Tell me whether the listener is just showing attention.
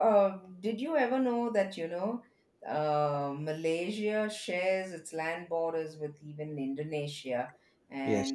Yes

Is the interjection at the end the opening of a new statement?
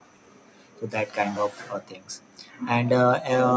No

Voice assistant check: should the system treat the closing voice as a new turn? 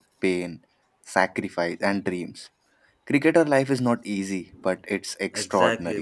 Yes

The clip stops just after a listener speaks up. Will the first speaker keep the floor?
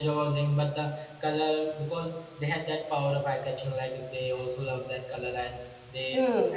Yes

